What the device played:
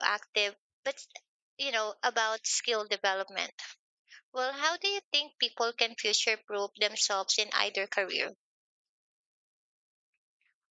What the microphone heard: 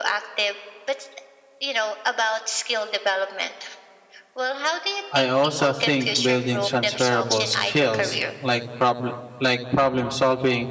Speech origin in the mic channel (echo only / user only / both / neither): both